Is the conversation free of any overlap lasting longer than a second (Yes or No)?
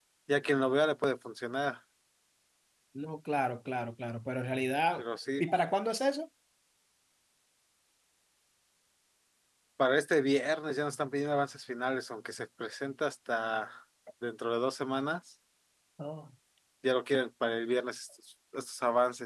Yes